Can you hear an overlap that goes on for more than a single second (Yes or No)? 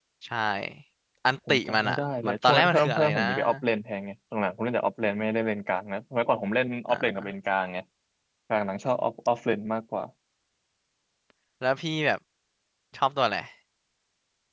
Yes